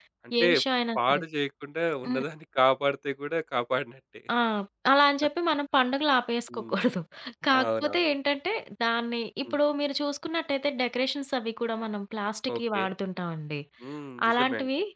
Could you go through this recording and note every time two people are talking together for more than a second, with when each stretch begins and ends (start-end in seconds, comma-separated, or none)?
none